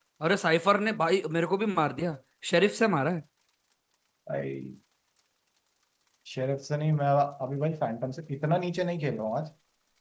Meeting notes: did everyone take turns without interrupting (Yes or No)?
Yes